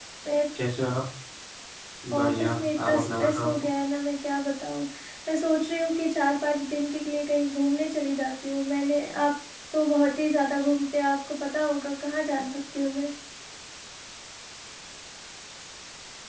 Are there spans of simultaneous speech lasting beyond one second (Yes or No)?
Yes